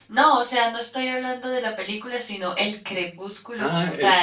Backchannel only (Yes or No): No